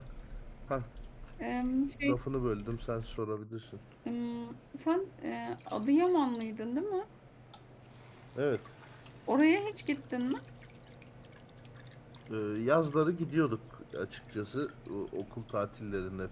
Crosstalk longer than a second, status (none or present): none